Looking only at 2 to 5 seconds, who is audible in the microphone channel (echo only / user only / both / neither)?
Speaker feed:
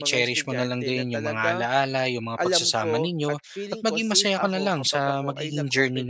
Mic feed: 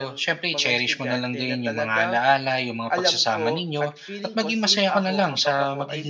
echo only